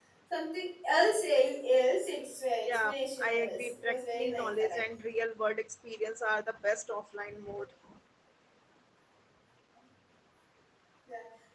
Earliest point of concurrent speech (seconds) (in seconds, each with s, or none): 2.7 s